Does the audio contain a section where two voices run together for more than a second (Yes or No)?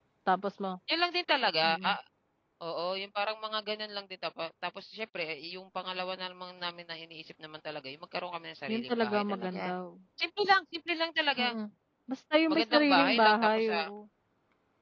Yes